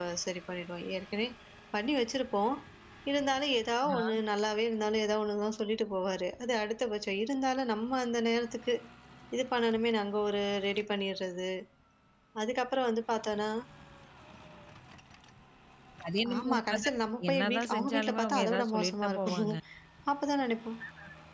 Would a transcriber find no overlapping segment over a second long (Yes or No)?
No